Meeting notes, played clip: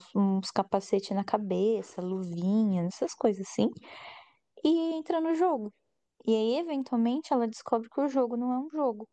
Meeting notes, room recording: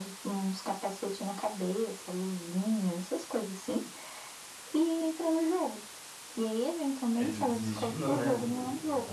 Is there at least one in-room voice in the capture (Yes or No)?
Yes